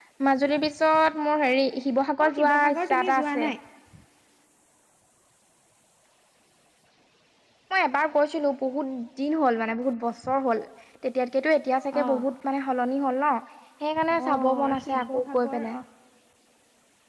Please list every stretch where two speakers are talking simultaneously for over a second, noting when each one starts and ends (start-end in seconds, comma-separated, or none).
2.2-3.5, 14.3-15.8